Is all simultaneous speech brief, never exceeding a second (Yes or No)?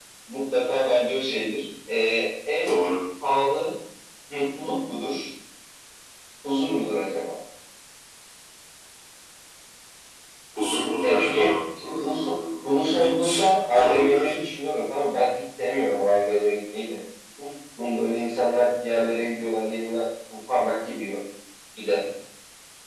No